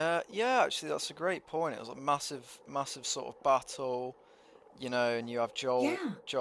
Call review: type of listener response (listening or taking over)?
listening